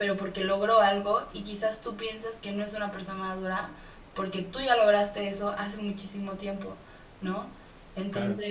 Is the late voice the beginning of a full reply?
No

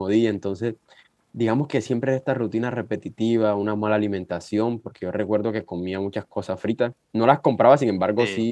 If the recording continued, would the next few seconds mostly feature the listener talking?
No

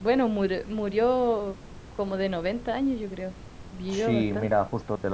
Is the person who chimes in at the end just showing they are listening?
No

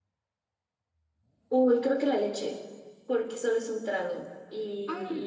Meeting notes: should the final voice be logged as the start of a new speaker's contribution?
No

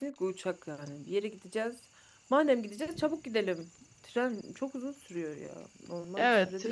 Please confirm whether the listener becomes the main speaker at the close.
Yes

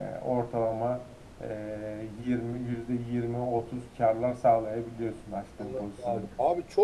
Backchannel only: No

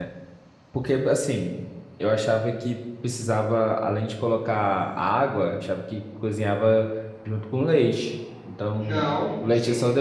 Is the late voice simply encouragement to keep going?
No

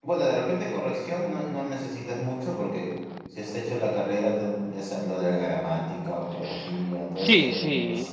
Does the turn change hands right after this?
Yes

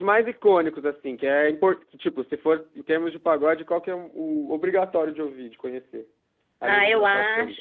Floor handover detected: Yes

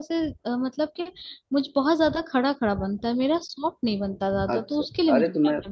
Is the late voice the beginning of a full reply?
Yes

